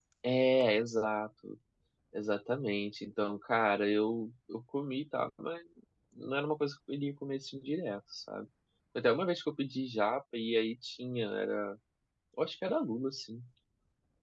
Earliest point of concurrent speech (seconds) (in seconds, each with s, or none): none